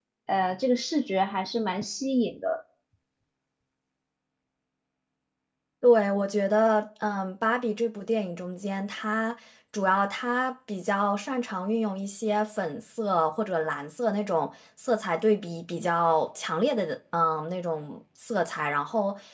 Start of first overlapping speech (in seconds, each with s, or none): none